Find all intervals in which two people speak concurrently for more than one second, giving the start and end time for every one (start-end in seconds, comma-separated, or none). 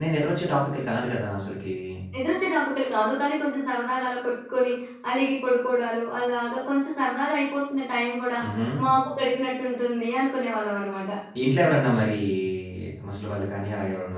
none